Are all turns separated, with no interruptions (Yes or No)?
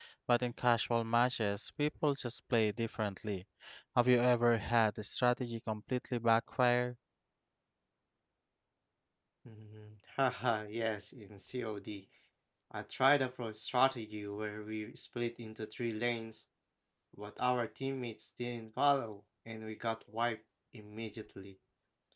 Yes